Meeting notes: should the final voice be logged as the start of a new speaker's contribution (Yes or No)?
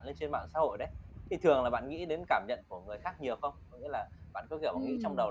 No